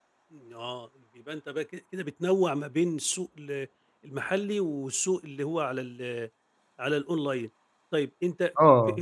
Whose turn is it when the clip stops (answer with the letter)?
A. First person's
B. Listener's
A